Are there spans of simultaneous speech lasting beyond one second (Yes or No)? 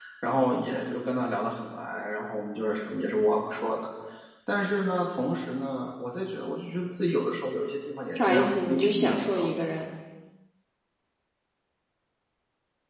Yes